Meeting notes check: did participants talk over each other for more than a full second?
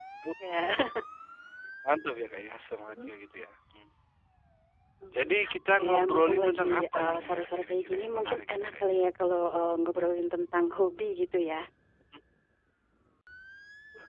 Yes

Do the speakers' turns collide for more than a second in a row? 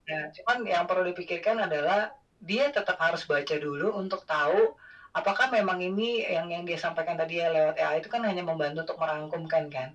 No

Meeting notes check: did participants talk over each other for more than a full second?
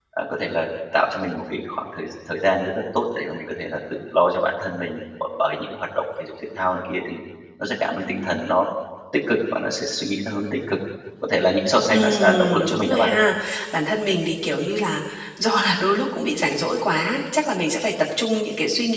Yes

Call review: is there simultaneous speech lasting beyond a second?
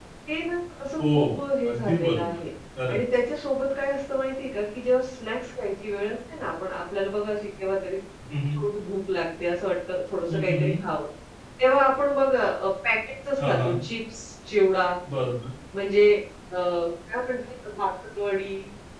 Yes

